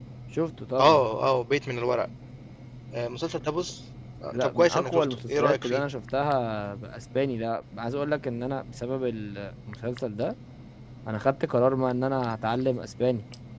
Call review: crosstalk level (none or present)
present